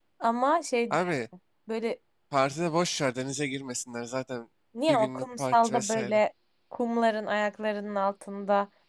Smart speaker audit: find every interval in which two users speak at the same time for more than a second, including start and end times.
4.9-6.2

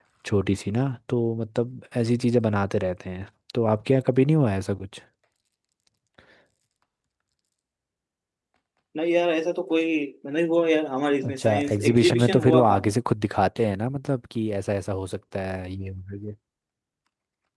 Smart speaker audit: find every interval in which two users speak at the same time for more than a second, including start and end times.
11.3-12.8

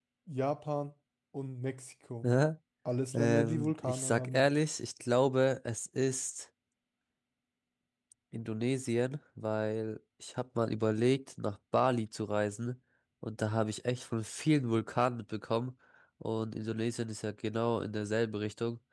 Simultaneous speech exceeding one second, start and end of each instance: 3.1-4.5

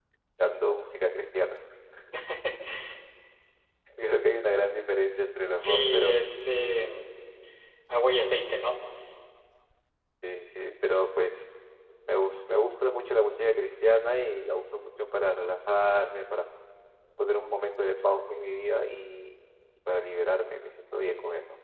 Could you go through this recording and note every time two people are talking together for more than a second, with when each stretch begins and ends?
none

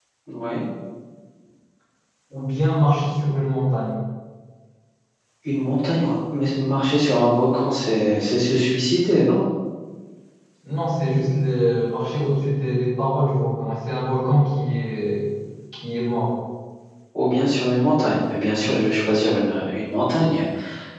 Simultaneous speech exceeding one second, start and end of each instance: none

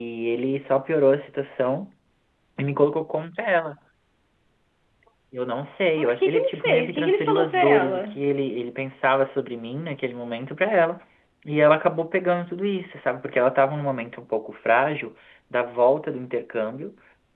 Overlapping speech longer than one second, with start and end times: 6.0-8.0

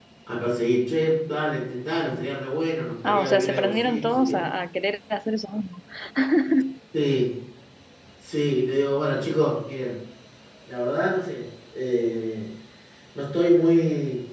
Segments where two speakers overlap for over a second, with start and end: 3.0-4.5

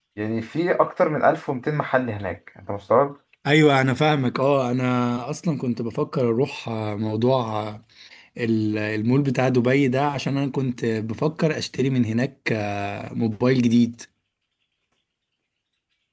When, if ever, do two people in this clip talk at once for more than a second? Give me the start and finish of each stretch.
none

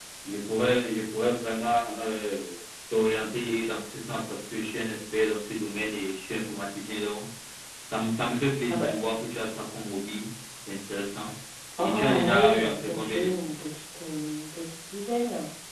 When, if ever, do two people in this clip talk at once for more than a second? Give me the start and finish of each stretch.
11.8-13.5

